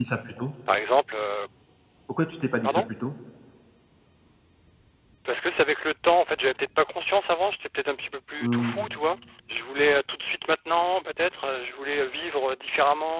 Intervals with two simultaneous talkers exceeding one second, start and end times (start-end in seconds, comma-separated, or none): none